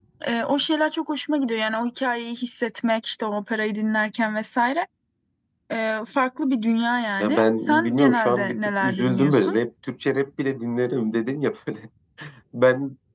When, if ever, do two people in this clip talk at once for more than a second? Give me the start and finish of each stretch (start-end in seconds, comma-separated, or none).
7.2-9.6